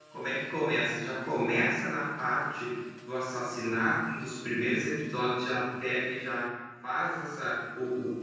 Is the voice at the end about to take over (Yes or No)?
No